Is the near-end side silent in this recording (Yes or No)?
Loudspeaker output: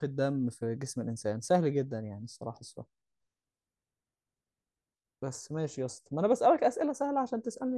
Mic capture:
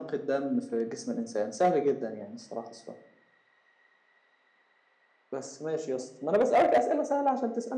Yes